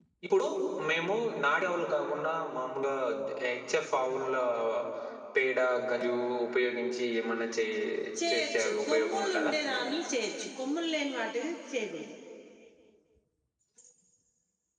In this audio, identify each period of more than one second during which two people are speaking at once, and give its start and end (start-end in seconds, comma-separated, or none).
8.3-9.5